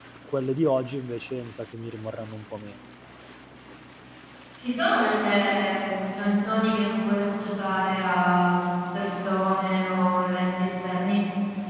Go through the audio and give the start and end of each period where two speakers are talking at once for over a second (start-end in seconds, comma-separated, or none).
none